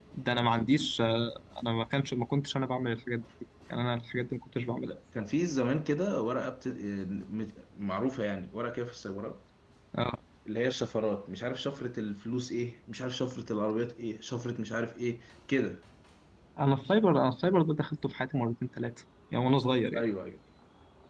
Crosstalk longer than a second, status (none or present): none